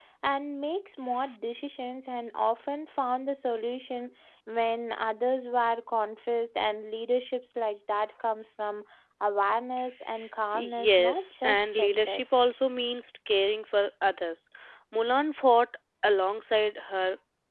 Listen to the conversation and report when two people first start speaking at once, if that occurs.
11 s

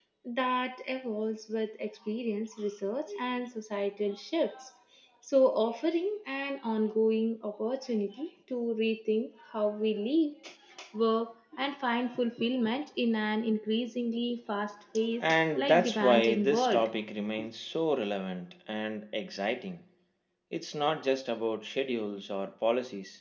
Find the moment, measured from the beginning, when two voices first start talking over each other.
15 s

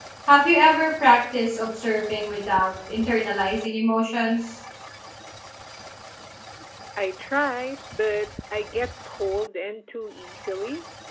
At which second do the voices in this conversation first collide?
none

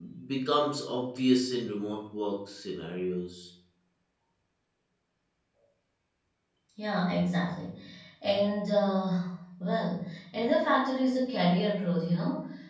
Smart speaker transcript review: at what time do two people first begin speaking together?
none

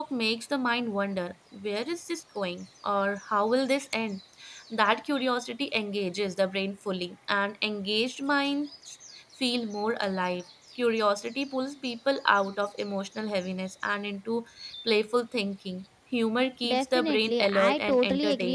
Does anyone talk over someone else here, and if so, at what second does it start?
17 s

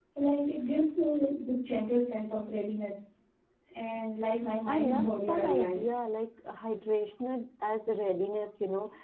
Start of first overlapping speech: 5 s

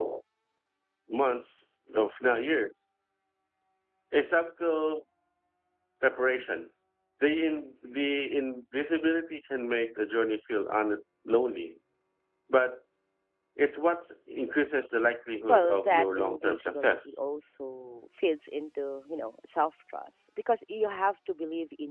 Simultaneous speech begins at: 15 s

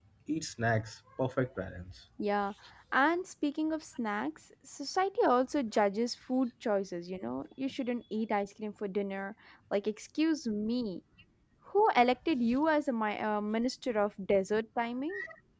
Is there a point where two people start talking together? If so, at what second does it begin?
none

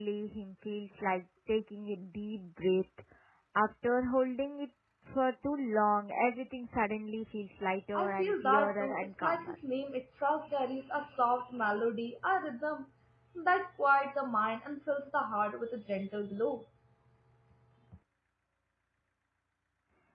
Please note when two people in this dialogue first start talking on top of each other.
8 s

